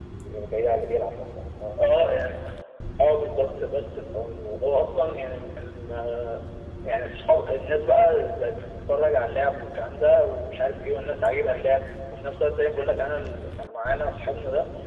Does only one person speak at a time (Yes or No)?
Yes